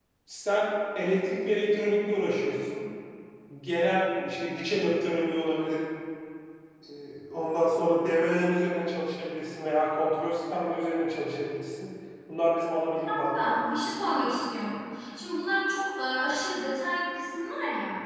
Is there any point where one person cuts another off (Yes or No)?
No